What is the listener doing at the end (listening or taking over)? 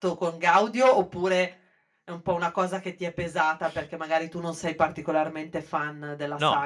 taking over